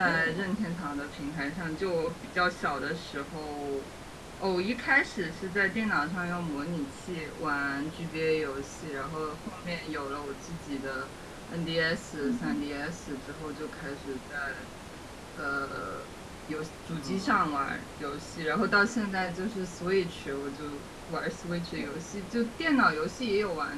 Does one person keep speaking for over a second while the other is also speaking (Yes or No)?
No